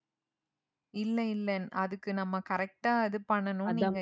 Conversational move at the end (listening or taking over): listening